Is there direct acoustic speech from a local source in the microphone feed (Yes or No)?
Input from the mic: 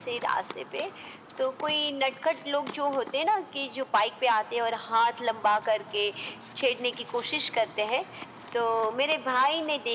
No